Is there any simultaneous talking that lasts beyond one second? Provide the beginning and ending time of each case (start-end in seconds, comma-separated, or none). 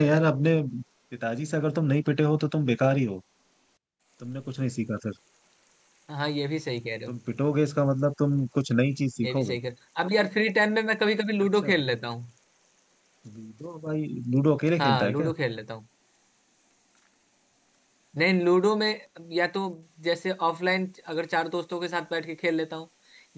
none